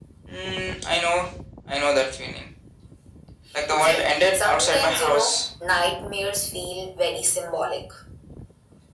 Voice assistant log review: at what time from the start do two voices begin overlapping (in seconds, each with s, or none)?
3.8 s